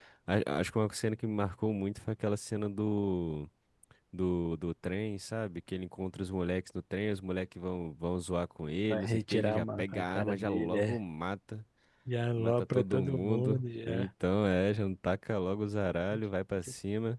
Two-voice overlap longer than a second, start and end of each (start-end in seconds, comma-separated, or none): 8.9-11.0, 12.4-14.1